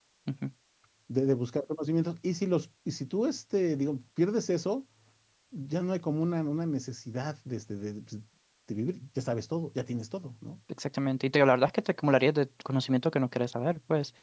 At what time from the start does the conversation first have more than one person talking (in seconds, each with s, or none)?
none